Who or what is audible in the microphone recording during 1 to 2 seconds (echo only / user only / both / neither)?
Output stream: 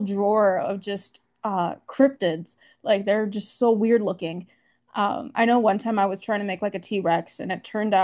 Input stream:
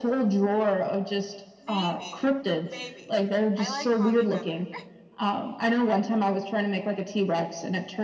both